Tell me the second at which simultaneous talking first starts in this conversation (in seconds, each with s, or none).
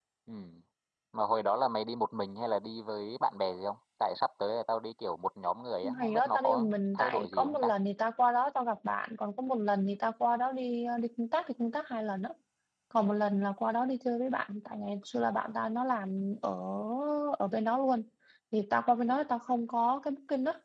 5.8 s